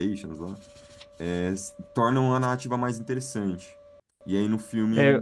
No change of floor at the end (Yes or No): Yes